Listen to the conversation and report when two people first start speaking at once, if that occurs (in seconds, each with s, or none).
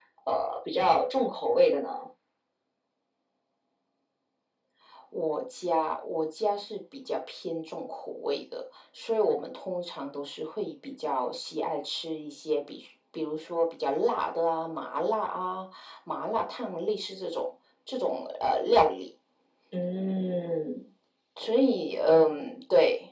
none